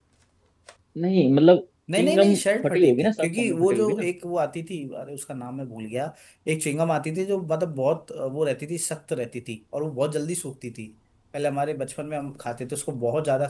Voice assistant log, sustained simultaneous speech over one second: present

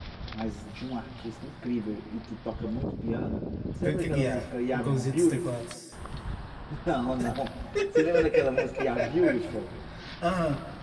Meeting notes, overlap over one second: present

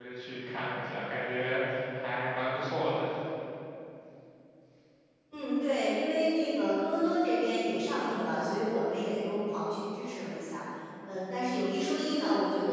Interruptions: none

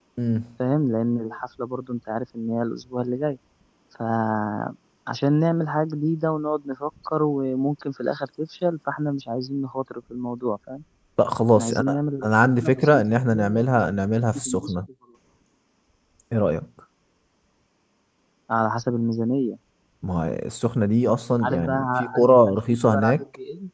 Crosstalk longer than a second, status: present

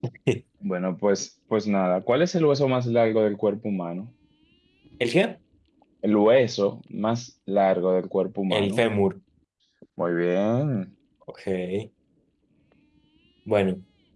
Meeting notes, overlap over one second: none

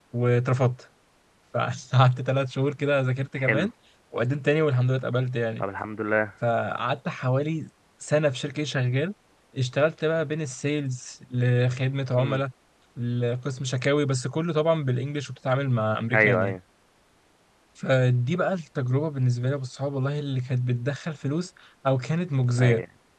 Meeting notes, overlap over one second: none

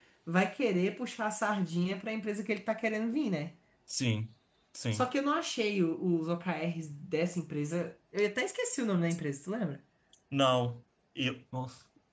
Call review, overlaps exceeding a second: none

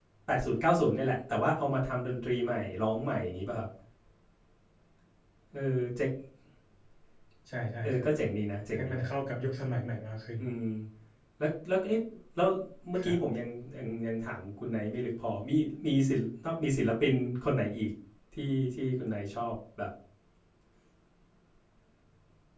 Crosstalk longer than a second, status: none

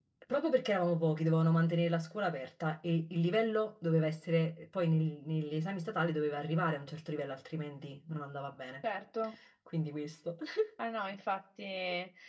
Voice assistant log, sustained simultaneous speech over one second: none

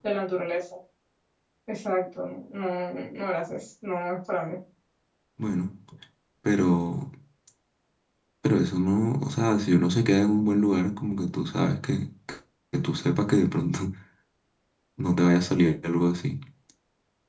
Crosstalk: none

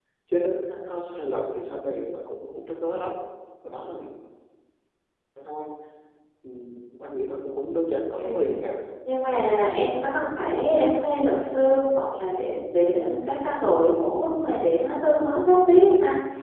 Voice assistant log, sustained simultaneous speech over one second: none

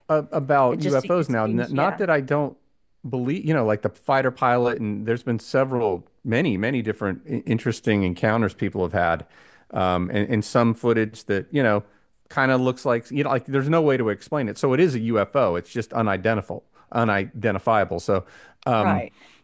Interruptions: present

